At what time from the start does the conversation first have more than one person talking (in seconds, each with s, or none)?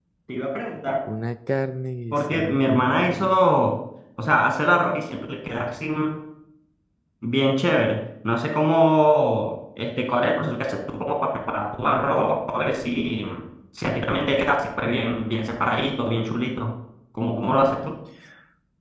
2.1 s